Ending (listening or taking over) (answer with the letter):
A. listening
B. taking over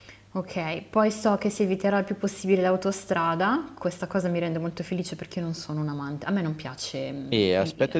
B